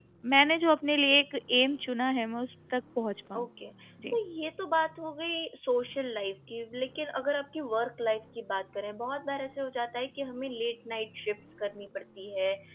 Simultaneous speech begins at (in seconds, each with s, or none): none